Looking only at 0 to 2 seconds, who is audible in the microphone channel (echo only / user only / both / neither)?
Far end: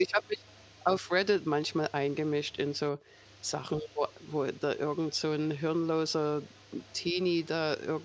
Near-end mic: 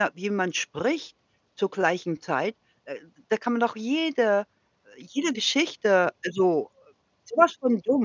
user only